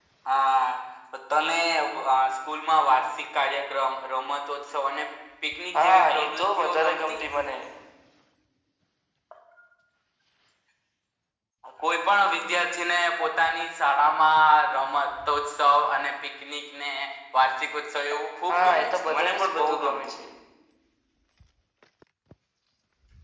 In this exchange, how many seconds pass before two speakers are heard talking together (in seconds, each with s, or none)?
5.7 s